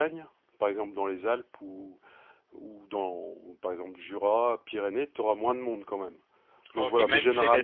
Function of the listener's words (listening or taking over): taking over